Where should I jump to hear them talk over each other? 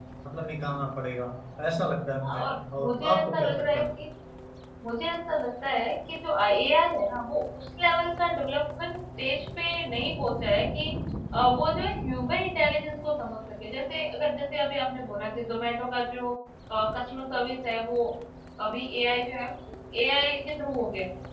2.3 s

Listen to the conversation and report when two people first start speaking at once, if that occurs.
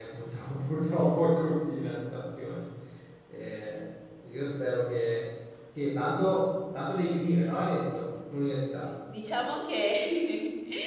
none

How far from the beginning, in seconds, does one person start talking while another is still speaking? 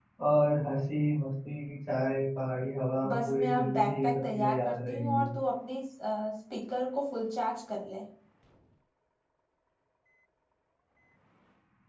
3.0 s

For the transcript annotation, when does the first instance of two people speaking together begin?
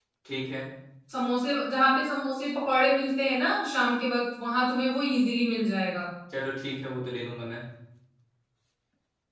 none

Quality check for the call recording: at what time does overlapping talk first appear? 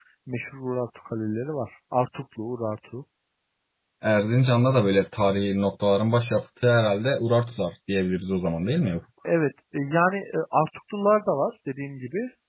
none

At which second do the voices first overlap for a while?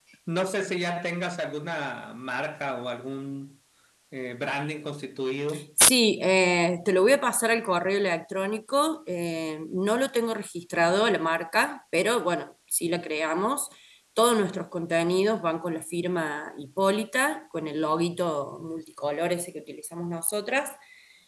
none

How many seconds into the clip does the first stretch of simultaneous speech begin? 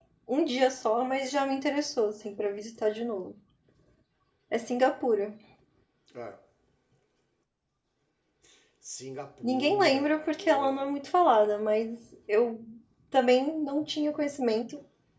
9.4 s

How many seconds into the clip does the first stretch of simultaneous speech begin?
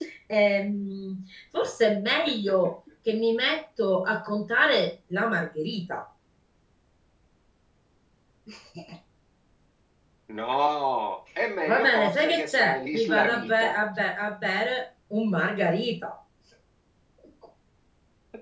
11.7 s

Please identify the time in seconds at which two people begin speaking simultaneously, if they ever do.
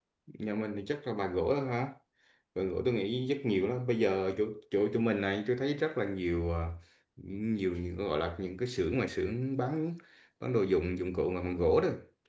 none

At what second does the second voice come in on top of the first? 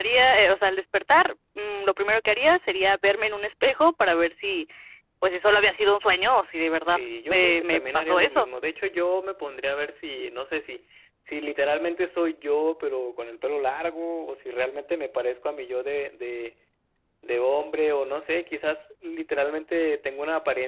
6.9 s

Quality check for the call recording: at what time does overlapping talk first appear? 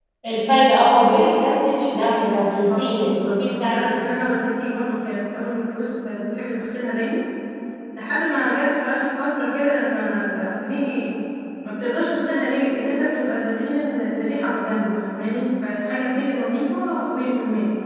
2.4 s

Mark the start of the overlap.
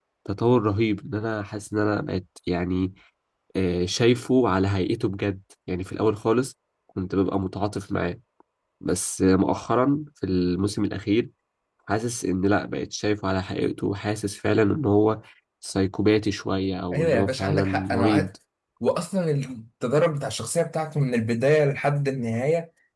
16.9 s

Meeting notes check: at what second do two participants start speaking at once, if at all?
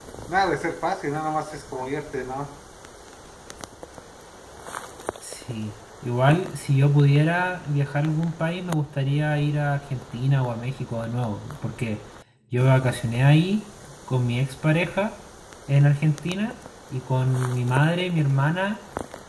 none

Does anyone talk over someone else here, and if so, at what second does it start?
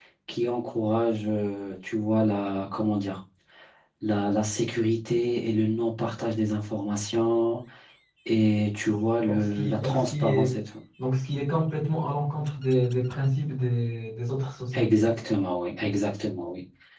9.2 s

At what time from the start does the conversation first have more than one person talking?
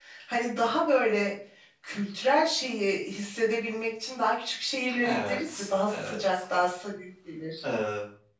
5.0 s

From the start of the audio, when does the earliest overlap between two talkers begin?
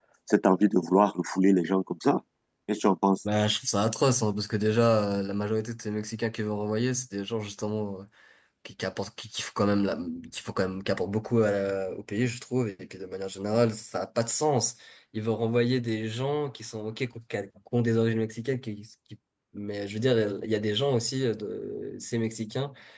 none

